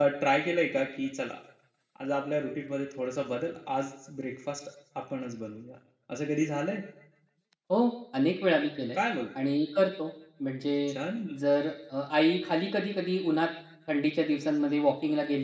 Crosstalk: none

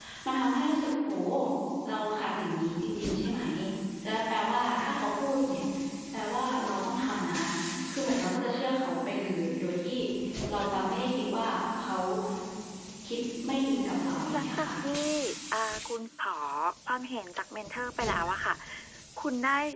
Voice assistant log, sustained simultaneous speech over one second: none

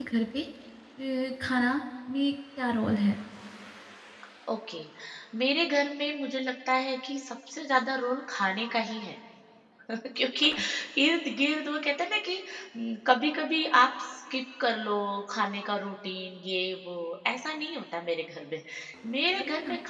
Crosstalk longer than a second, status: none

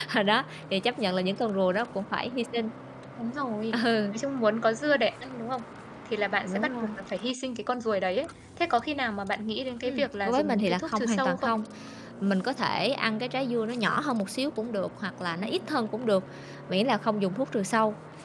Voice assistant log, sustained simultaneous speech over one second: present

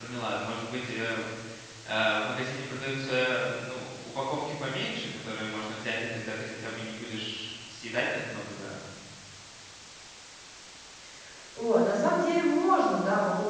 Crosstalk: none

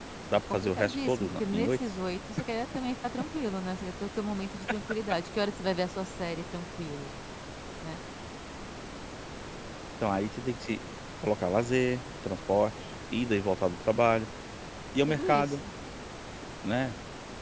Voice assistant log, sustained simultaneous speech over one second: present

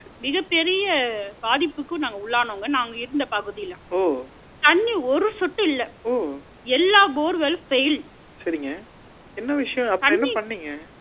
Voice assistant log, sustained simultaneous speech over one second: none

